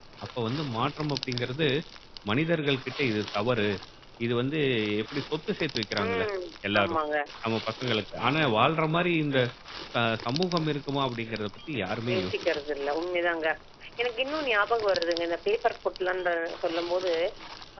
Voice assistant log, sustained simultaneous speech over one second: none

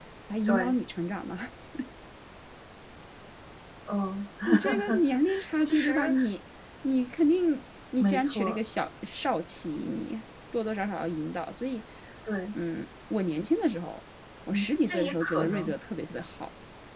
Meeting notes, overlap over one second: present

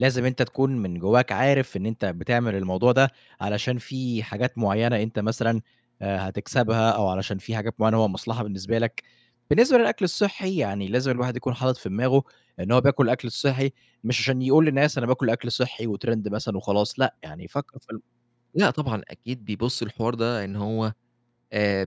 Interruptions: none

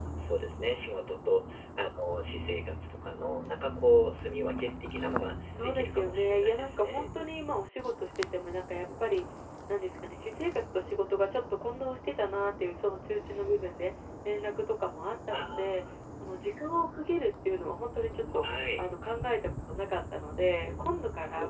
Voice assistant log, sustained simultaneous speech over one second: present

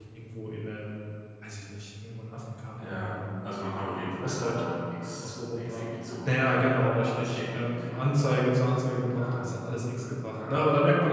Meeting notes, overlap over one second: present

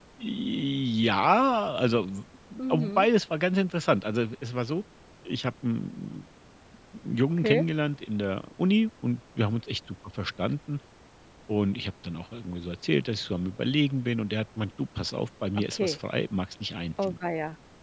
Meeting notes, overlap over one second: none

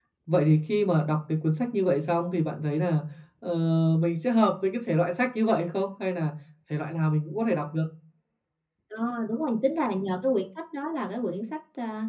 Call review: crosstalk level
none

